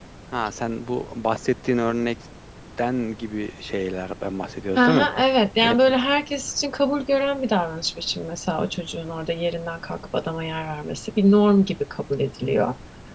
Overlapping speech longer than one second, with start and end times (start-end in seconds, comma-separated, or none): none